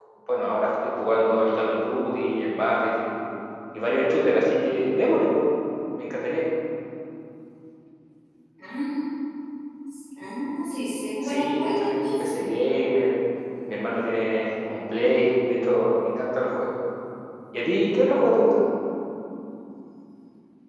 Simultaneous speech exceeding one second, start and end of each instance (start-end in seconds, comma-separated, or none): 11.2-12.5